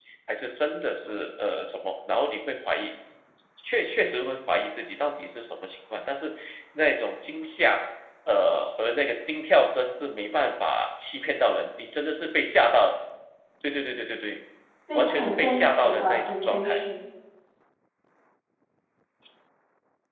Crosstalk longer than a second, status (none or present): present